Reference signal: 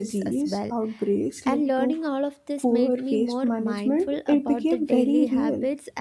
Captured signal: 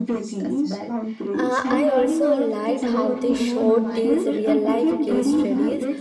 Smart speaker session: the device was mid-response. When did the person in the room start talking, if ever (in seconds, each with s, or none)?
1.3 s